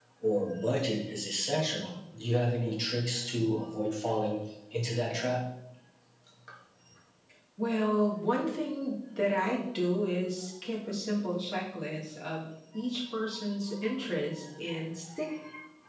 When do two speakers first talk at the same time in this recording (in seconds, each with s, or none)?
none